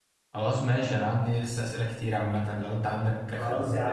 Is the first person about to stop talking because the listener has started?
Yes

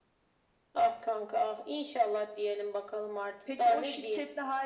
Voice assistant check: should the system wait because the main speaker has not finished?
No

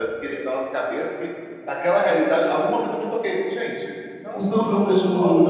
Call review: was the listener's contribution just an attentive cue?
No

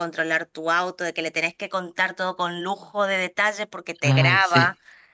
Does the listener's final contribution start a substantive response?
No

